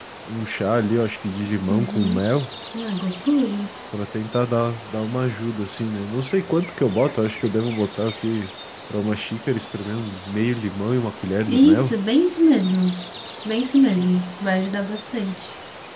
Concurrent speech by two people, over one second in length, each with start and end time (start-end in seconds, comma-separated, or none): none